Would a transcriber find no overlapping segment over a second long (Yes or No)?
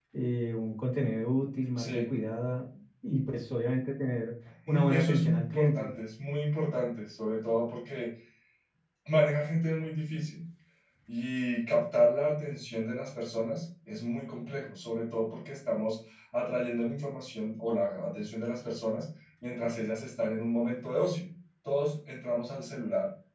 No